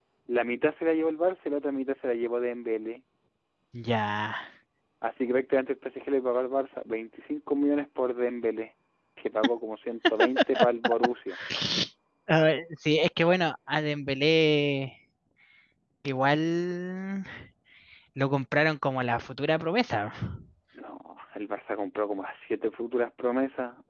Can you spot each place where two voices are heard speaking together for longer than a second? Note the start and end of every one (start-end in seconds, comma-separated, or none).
none